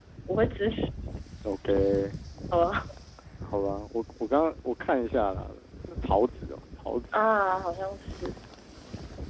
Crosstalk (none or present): none